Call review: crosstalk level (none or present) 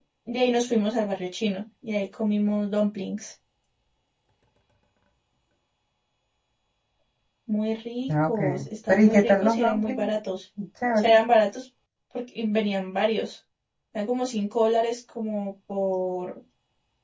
present